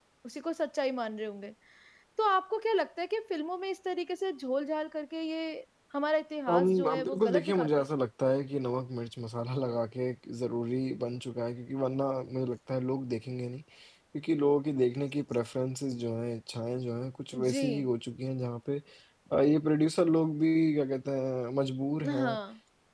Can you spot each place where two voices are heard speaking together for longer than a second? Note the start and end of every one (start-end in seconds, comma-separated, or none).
6.5-7.7